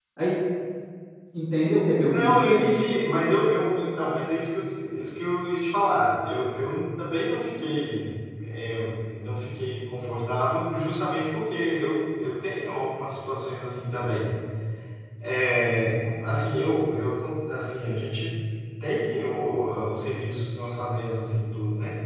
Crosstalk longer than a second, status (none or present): none